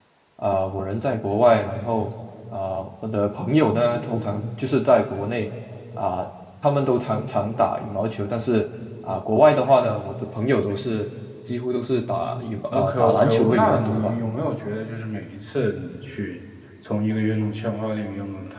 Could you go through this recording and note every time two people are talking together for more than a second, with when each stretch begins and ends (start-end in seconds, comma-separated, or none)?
12.7-14.1